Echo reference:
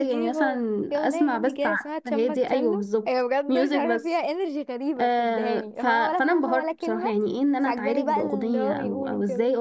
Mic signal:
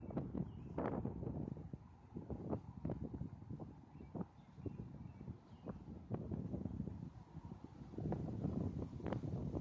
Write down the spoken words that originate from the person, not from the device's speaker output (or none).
none